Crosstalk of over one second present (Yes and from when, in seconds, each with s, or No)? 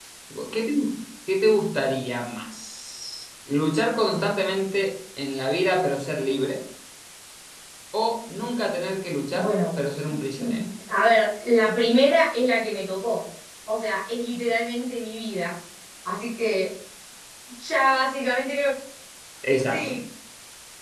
No